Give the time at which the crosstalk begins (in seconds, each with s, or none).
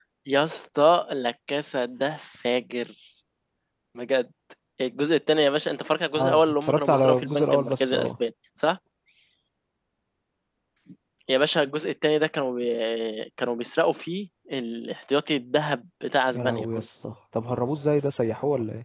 6.2 s